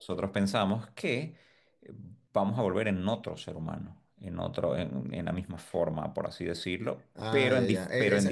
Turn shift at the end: Yes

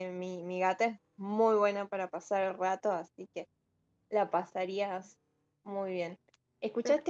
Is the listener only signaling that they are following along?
Yes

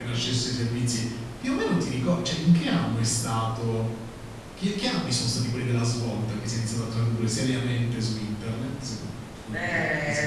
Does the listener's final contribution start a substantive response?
Yes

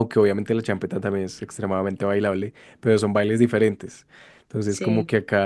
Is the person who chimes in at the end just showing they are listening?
Yes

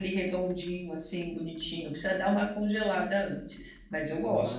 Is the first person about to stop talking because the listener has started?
Yes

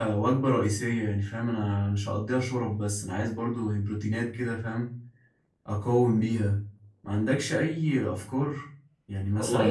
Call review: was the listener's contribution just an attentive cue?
No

